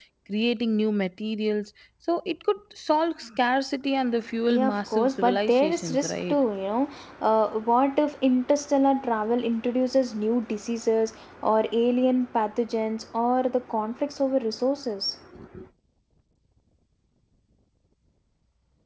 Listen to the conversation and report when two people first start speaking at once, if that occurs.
4.5 s

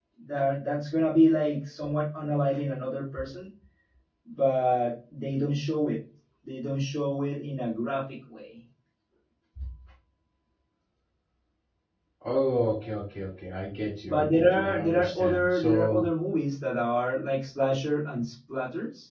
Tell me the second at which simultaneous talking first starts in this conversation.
14.0 s

